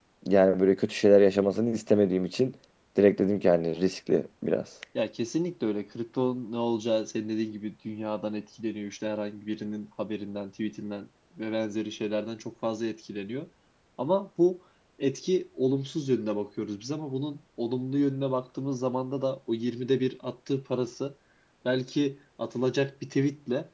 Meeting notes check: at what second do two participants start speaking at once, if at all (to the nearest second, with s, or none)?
none